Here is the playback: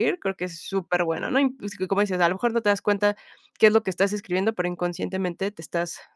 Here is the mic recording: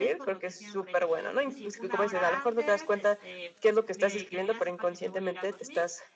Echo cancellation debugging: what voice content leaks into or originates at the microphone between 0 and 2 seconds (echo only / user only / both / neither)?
both